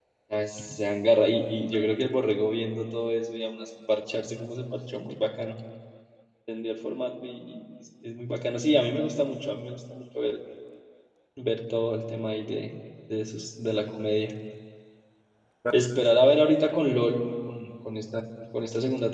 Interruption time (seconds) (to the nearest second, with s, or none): none